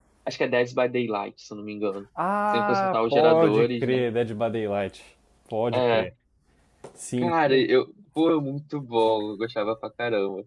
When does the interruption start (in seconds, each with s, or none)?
2.5 s